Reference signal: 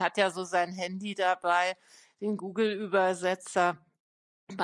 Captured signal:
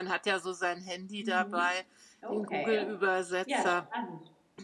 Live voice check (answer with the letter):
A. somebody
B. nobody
A